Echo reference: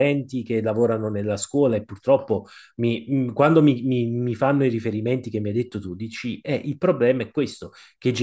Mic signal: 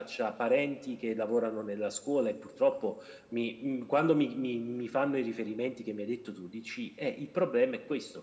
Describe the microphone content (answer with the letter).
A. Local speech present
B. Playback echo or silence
B